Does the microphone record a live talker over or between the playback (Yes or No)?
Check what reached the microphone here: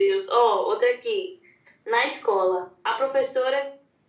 No